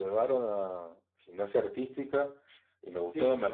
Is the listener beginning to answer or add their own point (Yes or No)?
No